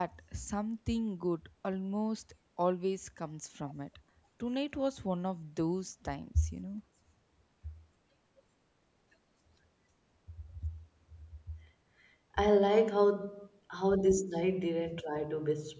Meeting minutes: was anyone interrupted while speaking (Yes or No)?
No